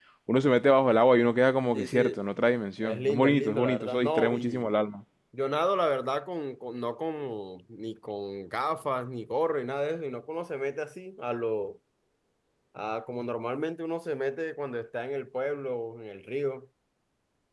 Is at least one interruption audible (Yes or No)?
Yes